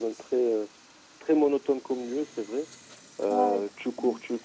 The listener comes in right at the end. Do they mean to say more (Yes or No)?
No